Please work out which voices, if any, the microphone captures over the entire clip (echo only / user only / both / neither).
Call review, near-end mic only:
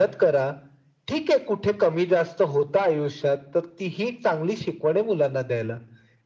echo only